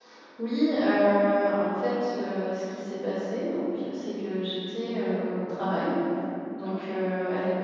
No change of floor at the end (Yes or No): Yes